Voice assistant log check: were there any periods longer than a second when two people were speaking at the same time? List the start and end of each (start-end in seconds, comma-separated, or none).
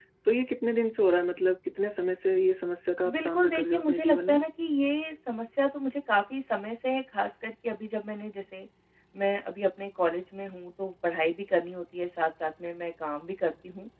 3.1-4.4